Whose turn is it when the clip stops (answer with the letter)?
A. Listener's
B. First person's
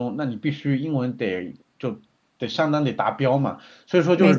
B